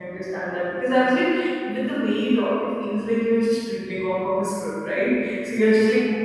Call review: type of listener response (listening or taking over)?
listening